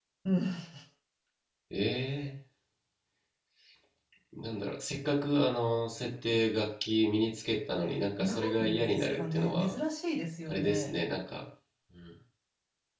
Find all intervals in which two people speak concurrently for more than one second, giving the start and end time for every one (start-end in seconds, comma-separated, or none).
8.2-9.8